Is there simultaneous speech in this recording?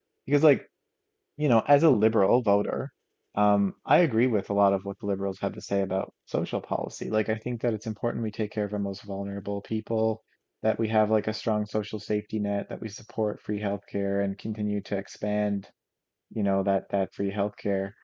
No

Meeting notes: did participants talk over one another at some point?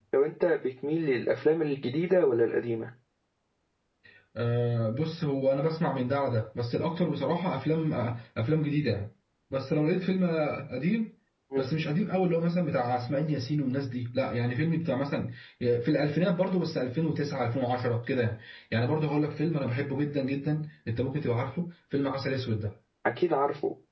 No

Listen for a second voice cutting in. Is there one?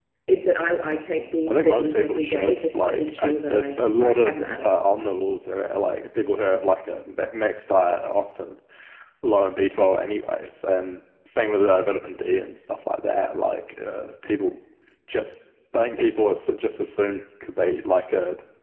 Yes, from 1.5 s

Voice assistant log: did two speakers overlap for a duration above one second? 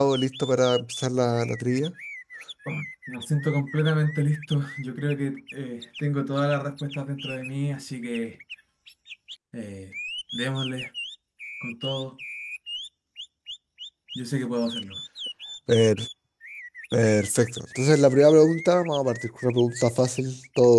No

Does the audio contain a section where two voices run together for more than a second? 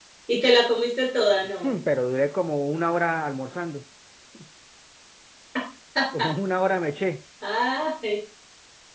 No

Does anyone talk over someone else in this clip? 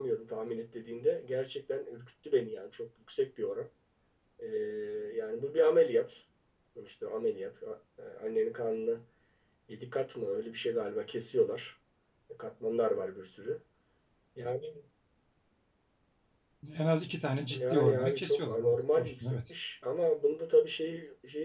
Yes, from 17.6 s

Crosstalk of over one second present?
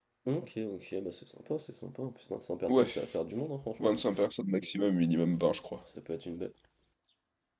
No

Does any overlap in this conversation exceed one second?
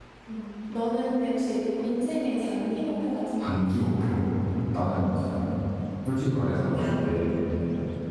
No

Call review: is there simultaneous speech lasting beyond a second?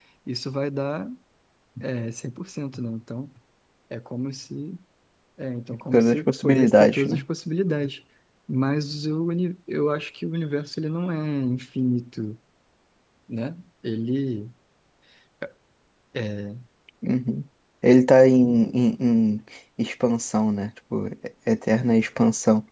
Yes, from 5.9 s

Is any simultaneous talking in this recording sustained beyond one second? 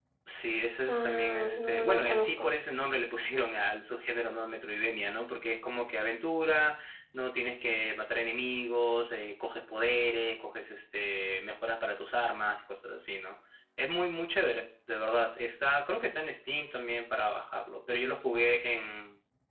Yes, from 0.9 s

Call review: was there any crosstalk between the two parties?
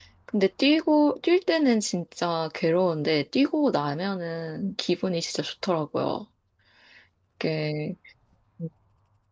No

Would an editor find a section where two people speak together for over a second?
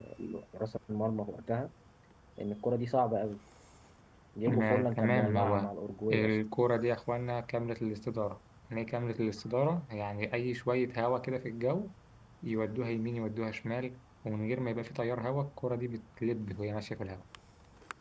Yes, from 4.5 s

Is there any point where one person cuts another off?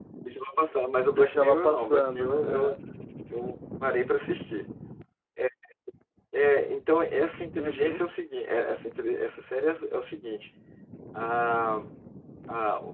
Yes, from 1.0 s

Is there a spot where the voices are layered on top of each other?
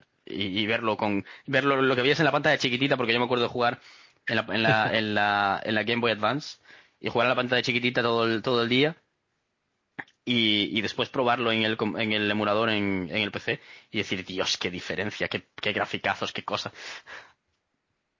No

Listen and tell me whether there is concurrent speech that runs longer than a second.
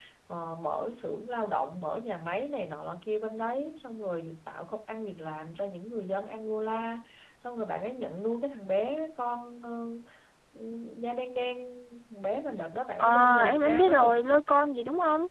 Yes, from 13.0 s

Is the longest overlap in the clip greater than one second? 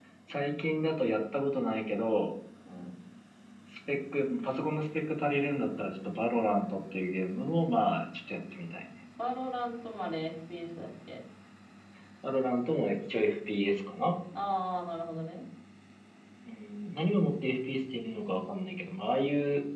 No

